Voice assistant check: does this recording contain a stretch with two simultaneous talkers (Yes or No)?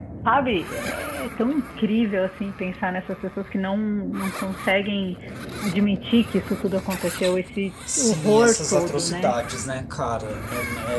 Yes